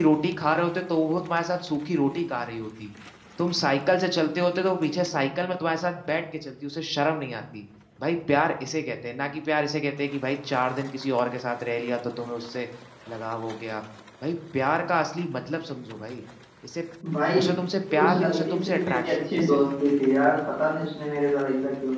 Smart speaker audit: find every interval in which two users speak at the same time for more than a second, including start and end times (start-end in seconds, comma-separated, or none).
18.0-19.6